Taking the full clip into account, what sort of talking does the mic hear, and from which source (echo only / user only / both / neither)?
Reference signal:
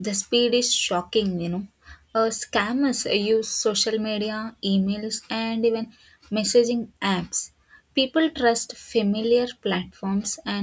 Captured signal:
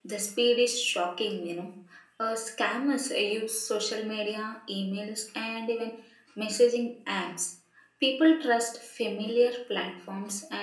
echo only